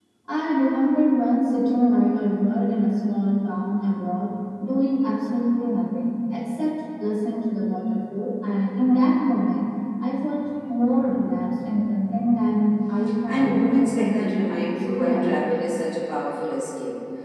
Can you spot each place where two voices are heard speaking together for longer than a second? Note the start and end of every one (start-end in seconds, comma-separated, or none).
13.3-15.3